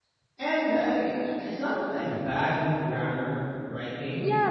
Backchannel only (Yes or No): No